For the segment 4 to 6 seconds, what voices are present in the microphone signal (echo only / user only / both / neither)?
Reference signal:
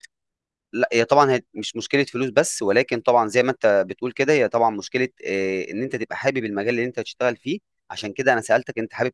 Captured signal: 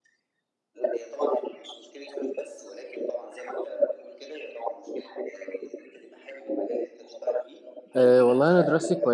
echo only